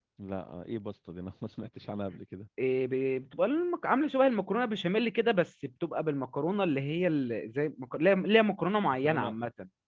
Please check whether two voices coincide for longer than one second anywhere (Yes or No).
No